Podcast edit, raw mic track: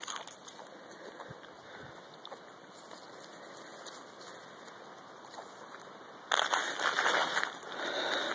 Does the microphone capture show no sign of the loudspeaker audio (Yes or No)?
Yes